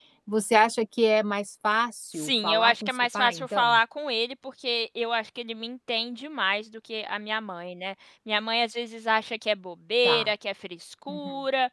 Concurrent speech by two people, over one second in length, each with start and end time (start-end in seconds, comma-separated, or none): 2.1-3.8